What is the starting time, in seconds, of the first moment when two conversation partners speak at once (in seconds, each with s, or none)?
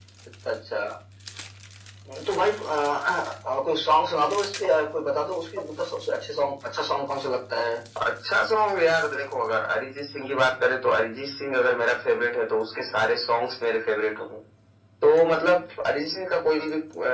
none